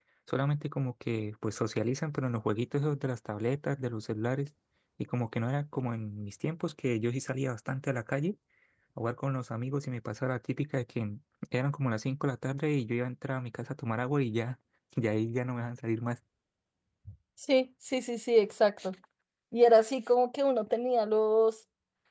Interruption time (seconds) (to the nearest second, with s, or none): none